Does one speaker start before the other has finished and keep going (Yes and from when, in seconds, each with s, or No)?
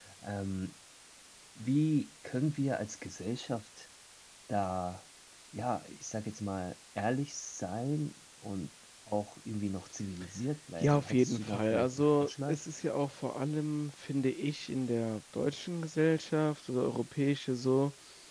Yes, from 10.8 s